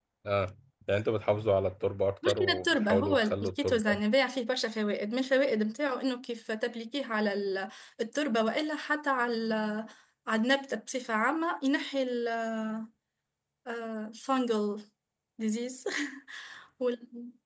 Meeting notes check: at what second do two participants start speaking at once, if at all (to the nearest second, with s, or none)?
2 s